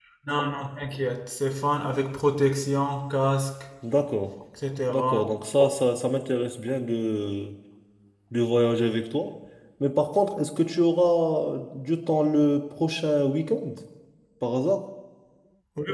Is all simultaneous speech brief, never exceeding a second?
Yes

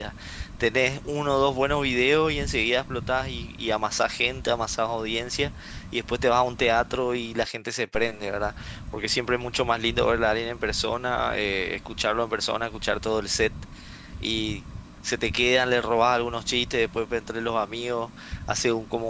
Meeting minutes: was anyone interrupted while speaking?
No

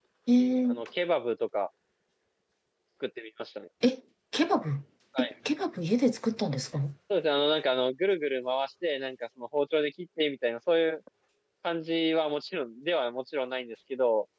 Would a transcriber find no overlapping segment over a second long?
Yes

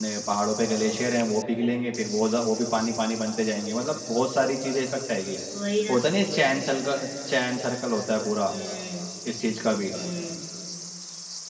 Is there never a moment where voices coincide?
Yes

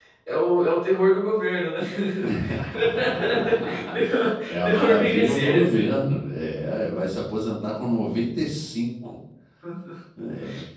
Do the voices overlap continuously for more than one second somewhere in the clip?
Yes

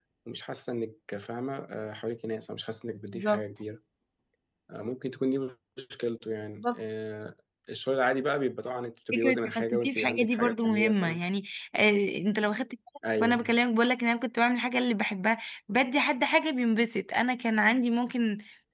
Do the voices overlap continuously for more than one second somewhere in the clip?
Yes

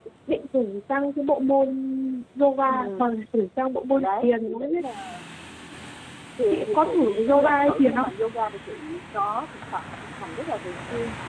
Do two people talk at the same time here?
Yes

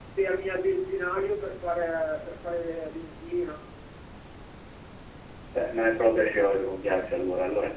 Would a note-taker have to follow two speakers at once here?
No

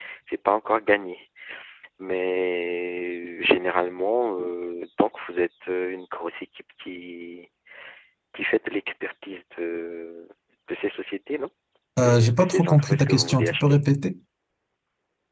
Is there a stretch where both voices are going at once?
Yes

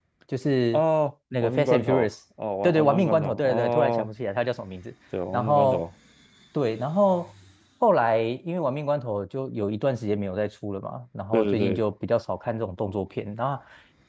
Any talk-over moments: Yes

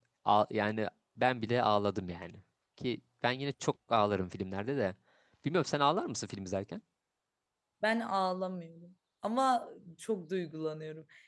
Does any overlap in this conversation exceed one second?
No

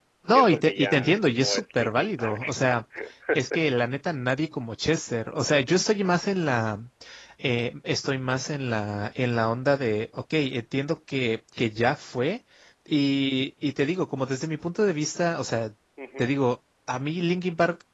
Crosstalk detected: Yes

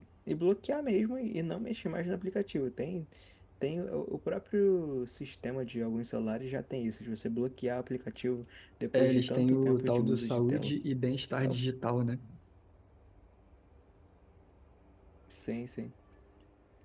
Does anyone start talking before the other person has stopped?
Yes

